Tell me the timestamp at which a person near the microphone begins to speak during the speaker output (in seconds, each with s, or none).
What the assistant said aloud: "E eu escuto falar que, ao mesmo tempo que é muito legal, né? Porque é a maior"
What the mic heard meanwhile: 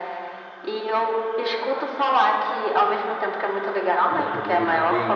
4.1 s